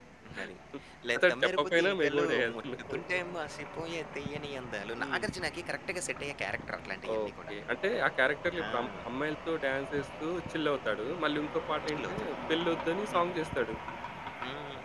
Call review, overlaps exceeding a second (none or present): present